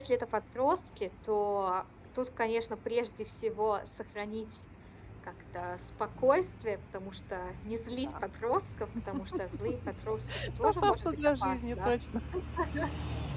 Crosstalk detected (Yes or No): Yes